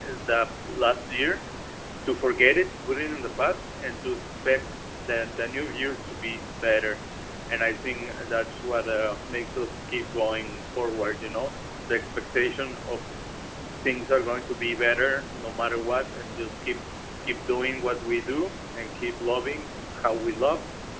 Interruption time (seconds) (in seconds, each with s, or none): none